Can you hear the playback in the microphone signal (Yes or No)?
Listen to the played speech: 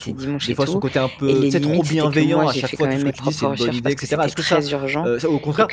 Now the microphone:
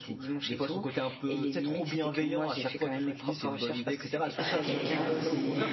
Yes